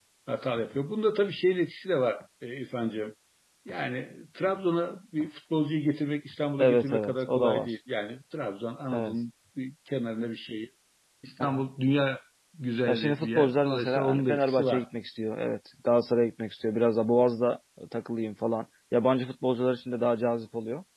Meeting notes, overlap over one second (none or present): present